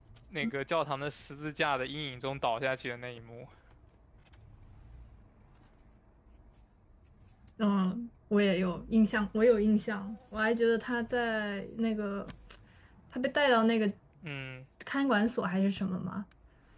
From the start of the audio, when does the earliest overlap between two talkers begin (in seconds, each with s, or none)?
none